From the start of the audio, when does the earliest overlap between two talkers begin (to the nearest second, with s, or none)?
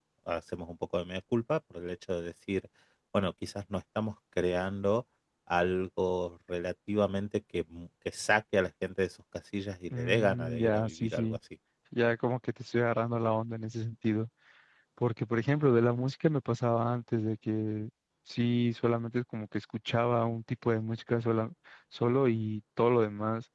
10 s